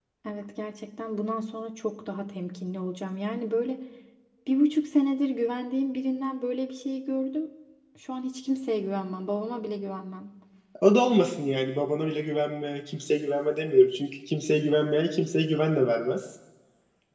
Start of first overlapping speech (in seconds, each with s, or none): none